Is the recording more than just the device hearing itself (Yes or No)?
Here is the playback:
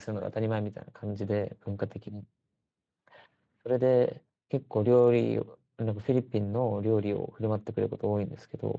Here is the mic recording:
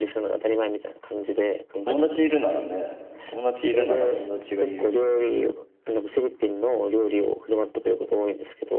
Yes